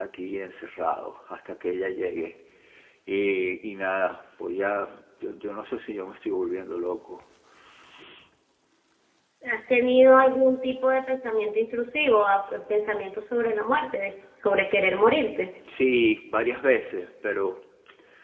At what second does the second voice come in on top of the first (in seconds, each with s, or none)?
none